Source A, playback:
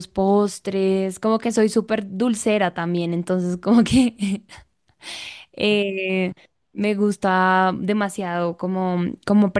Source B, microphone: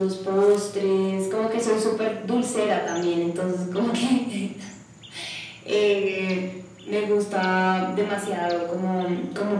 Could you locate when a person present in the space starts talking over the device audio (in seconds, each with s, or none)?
none